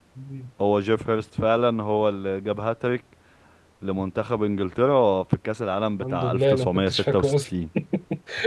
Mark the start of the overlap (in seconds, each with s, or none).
6.0 s